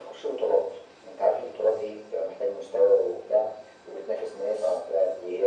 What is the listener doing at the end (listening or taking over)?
listening